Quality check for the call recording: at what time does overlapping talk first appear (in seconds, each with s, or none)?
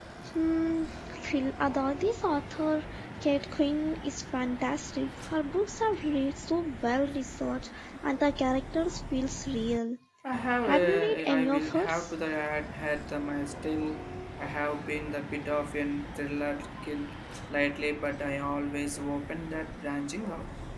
10.6 s